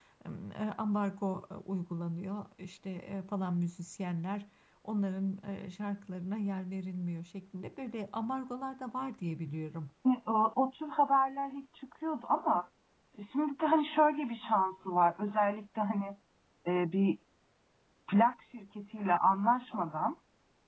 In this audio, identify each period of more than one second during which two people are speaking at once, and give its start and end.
none

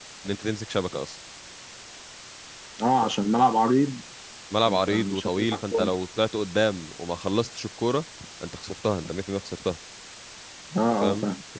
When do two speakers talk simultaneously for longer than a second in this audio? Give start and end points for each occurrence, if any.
4.7-5.9

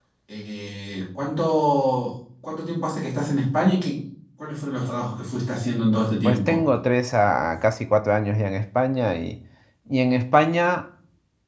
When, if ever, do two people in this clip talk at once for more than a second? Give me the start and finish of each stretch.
none

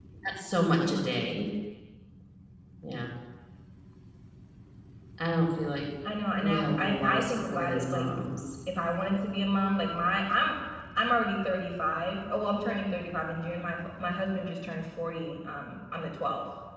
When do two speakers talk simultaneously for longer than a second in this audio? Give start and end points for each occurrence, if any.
6.4-8.1

